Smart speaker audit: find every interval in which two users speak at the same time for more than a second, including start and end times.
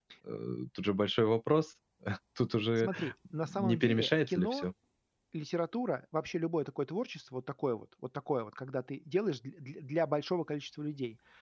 3.5-4.7

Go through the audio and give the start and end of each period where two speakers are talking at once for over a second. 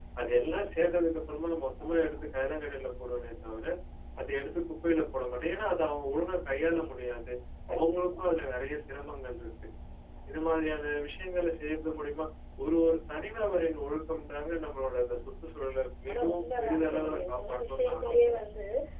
16.1-18.4

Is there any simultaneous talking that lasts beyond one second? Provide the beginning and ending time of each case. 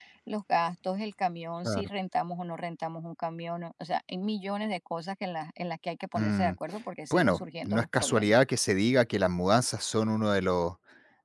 7.1-8.3

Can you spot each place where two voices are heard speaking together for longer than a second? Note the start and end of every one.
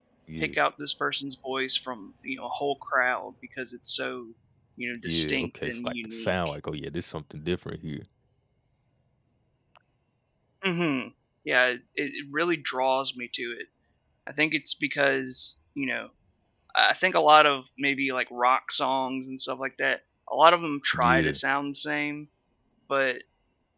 5.0-6.3

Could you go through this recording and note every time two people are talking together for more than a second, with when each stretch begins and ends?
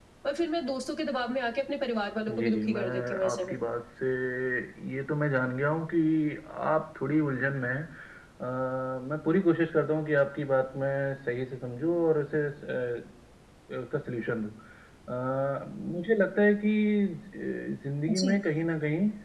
2.3-3.5

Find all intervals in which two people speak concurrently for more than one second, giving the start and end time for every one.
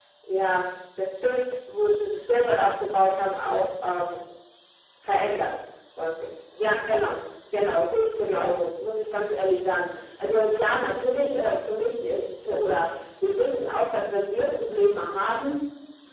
none

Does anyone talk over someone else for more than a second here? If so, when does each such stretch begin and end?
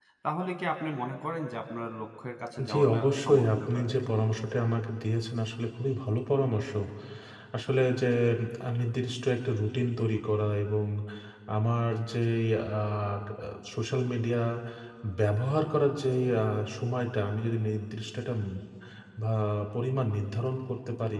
2.7-3.9

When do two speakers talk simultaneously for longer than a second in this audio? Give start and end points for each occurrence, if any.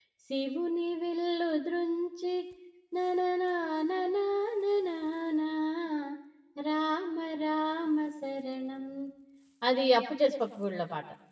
none

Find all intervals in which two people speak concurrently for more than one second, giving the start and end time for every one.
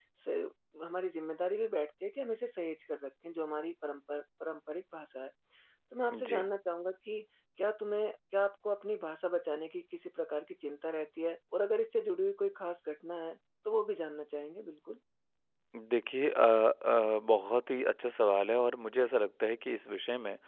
none

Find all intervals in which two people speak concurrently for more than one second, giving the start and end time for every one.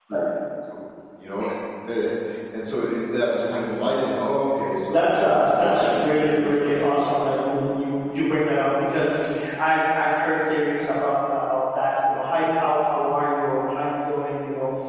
4.9-7.2

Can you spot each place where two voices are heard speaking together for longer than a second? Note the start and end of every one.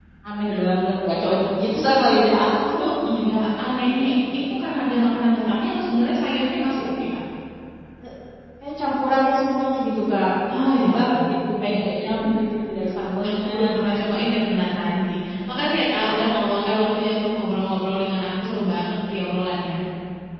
10.6-11.9

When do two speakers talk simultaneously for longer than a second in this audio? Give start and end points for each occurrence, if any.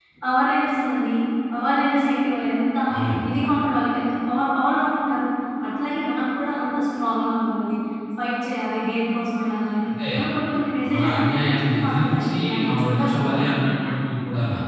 10.9-13.3

